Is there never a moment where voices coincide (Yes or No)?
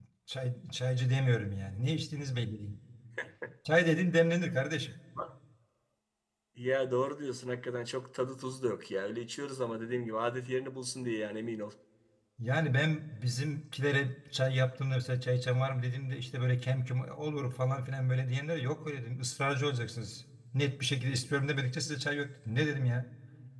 Yes